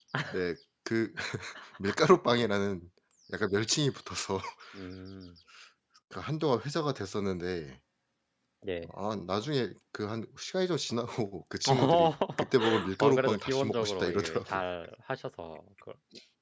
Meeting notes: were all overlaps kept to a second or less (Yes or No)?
No